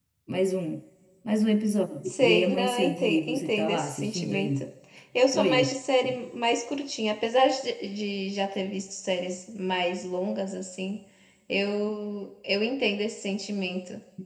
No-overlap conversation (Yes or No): No